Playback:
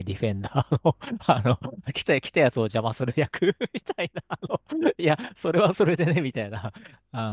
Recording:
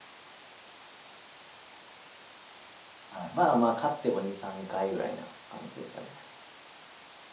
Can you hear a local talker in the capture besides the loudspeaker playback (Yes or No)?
Yes